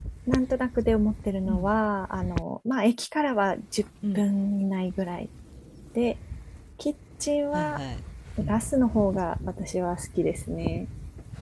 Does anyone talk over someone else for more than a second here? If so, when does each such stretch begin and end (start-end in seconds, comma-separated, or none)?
none